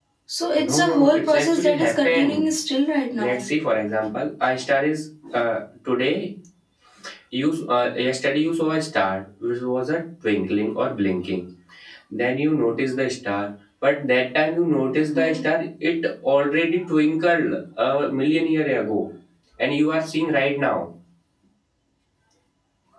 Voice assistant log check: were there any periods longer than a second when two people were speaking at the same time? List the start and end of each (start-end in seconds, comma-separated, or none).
0.6-2.5